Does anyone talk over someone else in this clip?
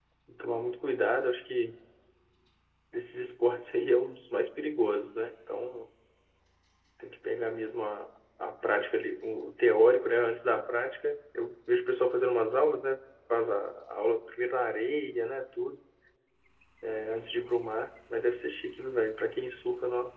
No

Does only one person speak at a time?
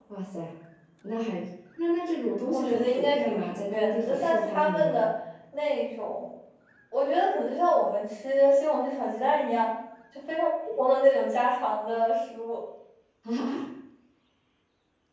No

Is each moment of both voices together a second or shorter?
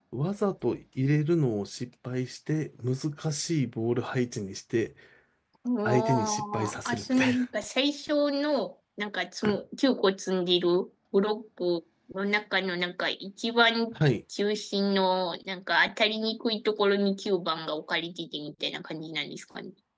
No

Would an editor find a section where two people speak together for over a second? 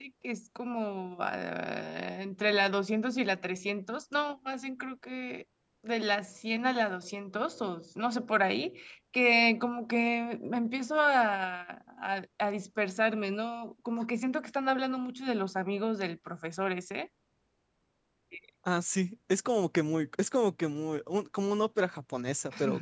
No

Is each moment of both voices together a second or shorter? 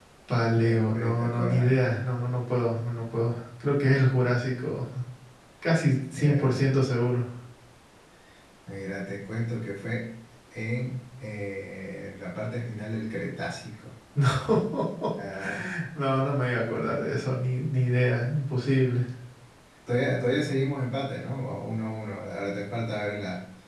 No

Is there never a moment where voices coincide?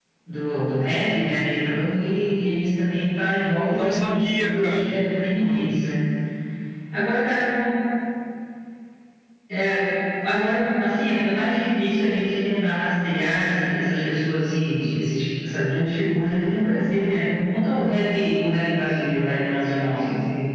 No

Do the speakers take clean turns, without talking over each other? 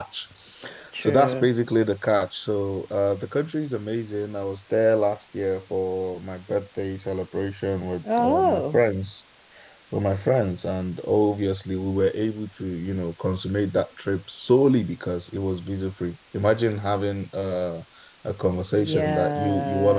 No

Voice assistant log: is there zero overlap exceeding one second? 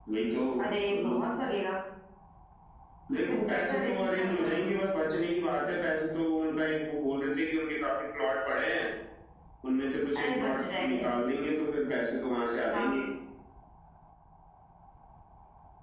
No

